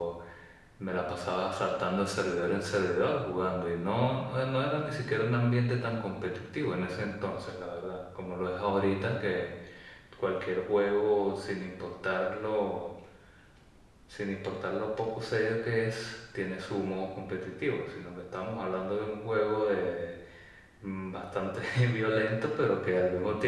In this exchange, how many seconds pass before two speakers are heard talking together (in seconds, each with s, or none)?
none